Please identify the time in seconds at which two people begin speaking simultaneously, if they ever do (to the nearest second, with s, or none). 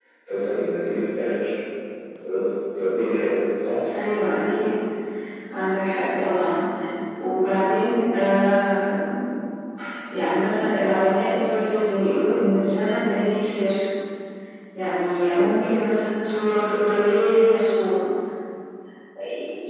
none